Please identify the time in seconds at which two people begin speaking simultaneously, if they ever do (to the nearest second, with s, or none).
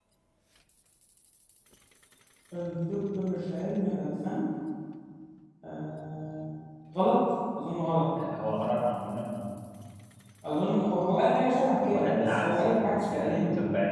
12 s